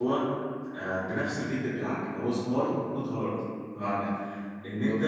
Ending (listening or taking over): listening